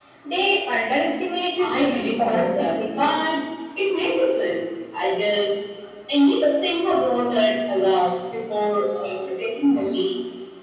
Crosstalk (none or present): present